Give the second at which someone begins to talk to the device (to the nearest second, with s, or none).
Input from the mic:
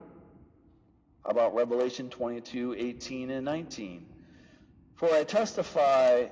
none